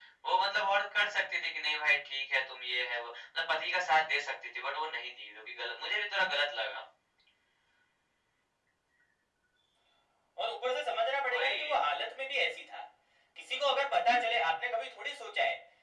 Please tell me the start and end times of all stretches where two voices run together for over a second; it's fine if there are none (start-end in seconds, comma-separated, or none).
none